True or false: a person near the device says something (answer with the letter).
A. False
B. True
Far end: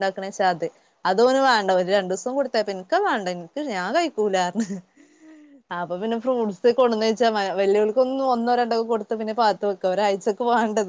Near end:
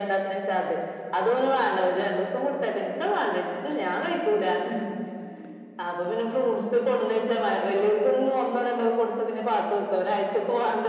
A